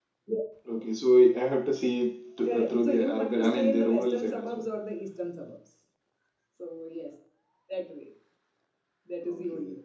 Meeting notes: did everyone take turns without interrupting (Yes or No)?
No